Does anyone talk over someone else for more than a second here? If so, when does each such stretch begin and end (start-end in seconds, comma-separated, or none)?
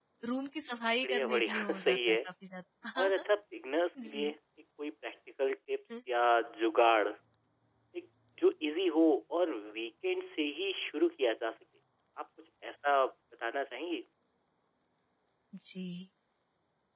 1.0-2.3